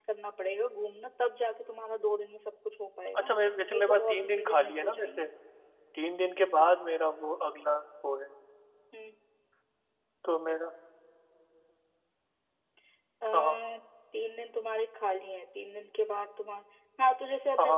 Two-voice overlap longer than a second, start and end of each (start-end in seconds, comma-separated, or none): 3.7-5.3